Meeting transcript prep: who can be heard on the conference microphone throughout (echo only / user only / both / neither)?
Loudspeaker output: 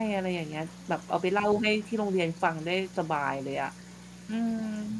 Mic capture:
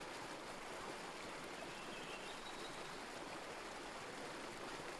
neither